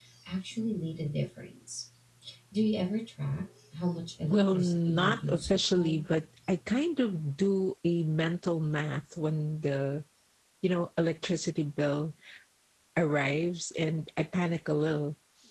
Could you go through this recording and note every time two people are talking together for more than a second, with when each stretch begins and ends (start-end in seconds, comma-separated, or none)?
4.3-6.0